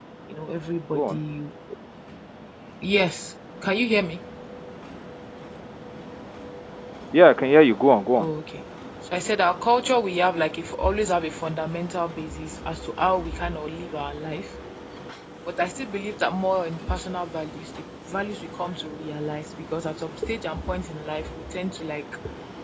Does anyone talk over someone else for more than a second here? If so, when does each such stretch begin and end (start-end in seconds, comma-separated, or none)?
none